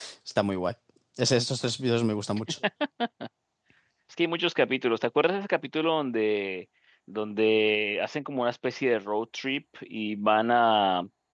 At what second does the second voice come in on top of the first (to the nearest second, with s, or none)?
none